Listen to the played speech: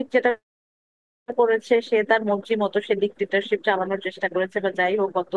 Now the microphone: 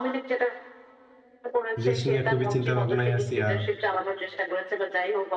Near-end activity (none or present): present